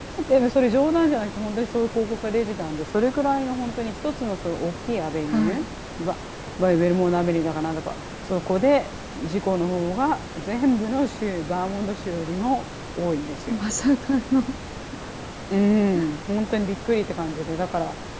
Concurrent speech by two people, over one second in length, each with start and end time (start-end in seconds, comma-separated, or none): none